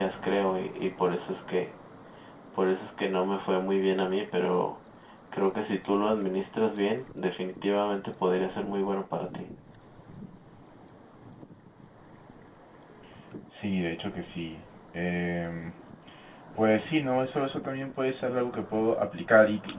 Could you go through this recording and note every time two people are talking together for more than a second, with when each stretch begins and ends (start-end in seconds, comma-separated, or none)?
none